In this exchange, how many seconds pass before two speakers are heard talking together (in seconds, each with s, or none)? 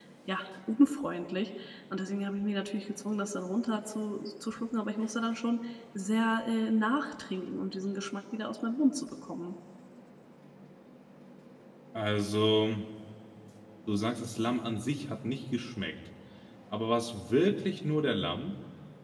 none